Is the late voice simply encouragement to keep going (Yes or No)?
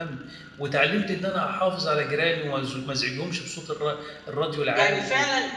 No